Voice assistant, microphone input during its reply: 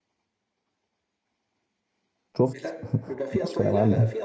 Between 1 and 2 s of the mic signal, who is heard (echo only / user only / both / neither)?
neither